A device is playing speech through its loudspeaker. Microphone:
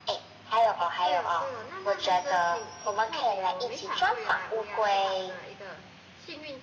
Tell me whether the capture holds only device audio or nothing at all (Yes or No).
No